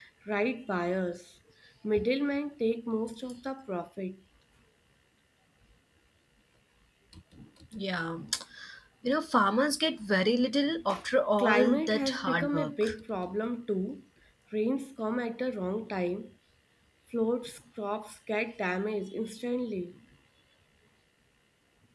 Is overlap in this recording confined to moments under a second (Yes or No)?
No